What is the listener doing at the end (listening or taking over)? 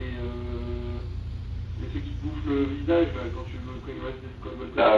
taking over